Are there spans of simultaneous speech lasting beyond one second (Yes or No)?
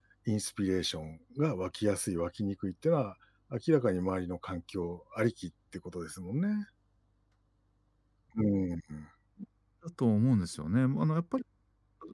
No